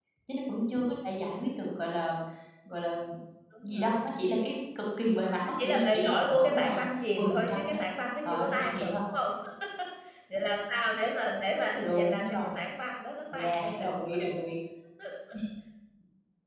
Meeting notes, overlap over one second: present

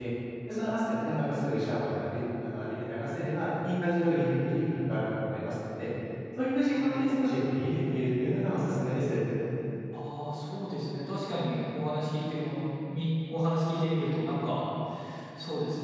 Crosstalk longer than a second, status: none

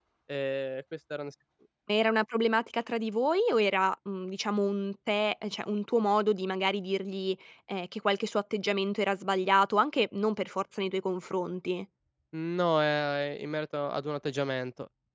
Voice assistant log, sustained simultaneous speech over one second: none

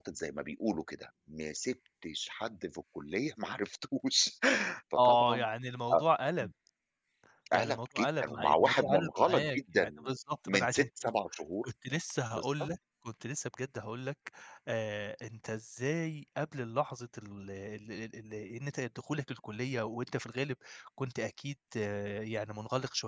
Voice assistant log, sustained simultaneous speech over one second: present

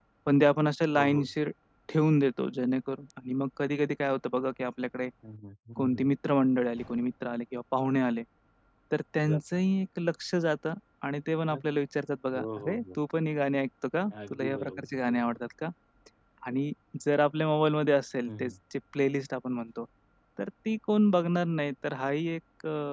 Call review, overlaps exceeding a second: present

